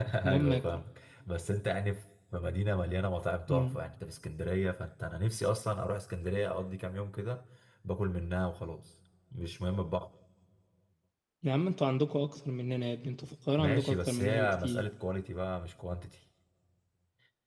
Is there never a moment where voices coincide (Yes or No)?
No